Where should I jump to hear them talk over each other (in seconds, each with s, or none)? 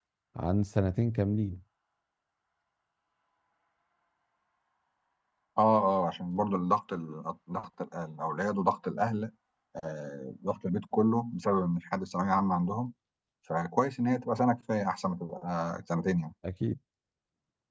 none